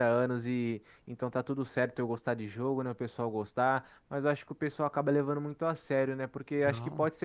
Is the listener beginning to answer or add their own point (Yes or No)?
No